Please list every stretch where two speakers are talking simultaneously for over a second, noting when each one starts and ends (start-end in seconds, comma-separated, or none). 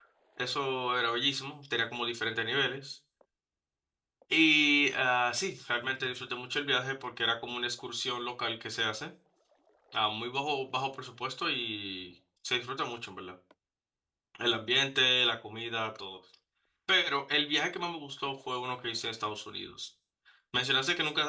none